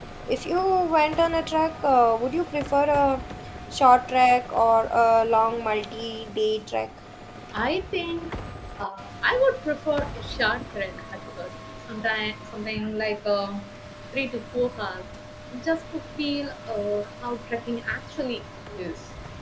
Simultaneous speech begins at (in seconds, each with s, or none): none